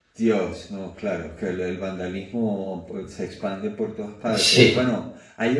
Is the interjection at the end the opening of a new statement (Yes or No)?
No